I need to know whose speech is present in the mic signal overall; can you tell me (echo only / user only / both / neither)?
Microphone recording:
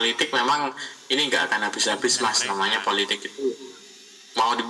both